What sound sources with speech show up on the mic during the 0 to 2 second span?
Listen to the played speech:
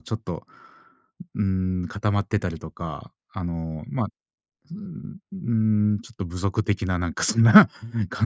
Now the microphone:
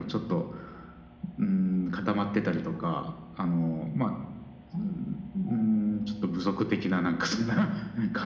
echo only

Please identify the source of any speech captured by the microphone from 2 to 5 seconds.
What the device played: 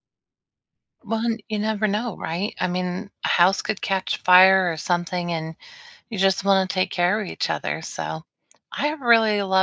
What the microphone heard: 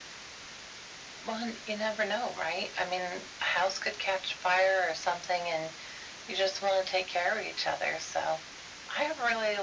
echo only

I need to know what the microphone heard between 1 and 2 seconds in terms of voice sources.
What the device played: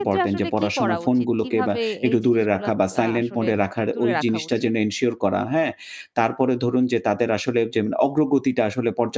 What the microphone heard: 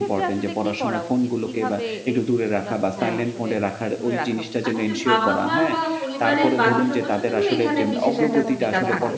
echo only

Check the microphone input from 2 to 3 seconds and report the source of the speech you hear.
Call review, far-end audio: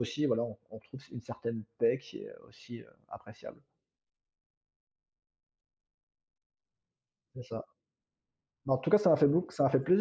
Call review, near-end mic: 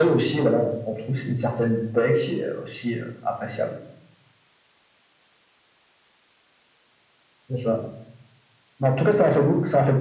echo only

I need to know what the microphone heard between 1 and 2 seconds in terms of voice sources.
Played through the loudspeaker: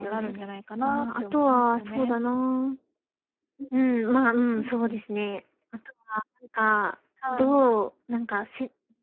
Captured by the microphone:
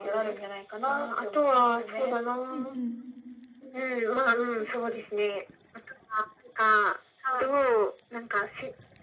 echo only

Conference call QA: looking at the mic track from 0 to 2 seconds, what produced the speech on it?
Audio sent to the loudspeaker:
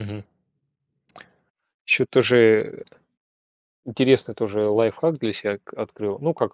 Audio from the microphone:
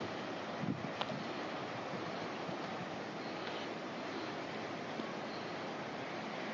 neither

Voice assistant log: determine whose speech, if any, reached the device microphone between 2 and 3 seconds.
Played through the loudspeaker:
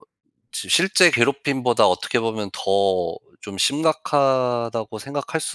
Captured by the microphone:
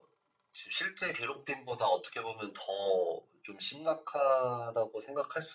echo only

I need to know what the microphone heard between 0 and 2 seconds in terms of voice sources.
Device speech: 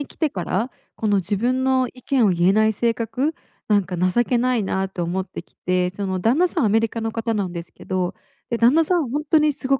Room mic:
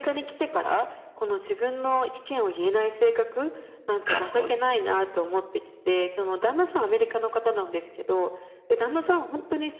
echo only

